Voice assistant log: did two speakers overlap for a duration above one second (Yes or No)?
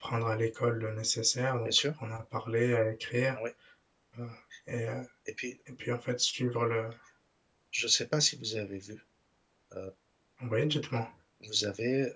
No